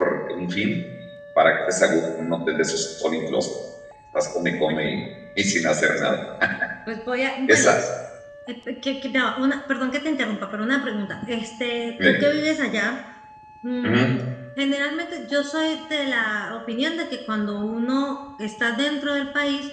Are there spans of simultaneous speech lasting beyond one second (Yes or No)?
No